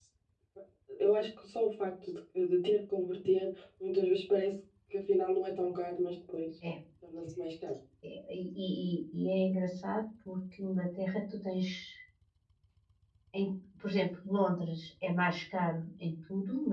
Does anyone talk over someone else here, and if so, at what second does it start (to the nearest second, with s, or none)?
none